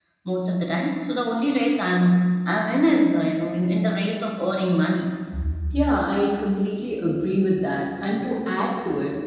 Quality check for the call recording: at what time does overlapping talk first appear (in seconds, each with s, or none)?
none